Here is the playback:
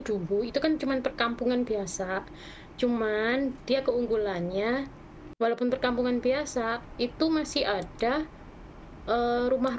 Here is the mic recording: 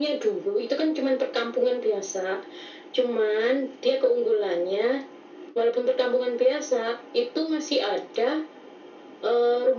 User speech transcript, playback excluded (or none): none